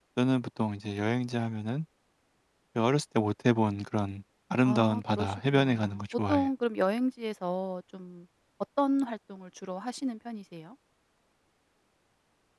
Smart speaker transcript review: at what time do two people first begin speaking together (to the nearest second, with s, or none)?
5 s